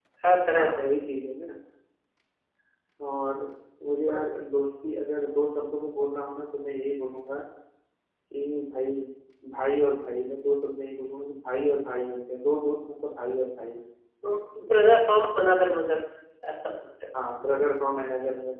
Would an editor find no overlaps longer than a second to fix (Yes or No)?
Yes